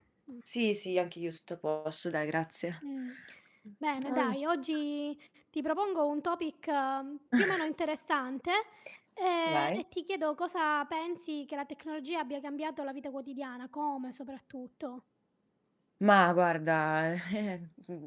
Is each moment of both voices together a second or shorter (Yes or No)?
Yes